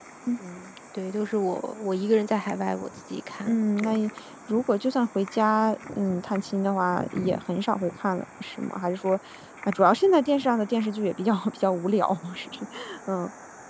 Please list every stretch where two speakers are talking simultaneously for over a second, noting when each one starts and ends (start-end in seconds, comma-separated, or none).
none